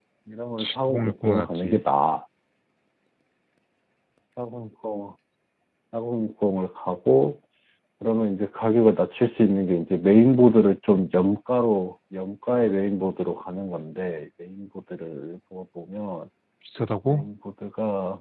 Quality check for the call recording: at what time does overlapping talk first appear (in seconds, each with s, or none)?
0.6 s